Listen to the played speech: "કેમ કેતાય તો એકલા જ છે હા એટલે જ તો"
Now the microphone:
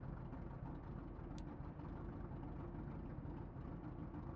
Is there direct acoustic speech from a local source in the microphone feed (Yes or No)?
No